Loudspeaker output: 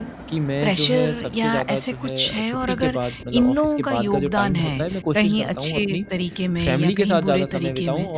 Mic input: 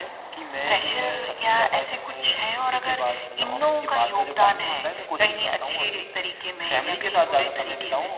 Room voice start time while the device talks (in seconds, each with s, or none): none